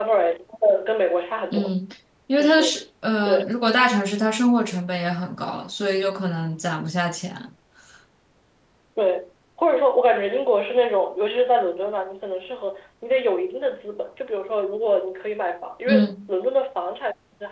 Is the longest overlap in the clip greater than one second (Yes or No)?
No